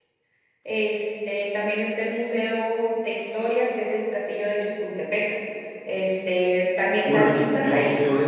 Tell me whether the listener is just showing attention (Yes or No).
No